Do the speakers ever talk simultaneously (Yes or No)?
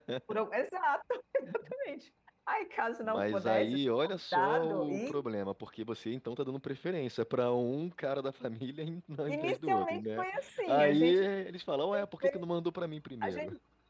Yes